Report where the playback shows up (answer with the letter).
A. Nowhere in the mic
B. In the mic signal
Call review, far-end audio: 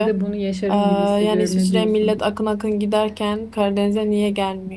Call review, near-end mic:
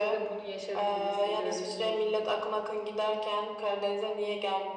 B